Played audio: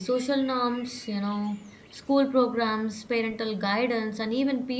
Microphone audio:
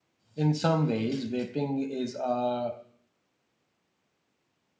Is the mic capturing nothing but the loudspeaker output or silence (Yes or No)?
No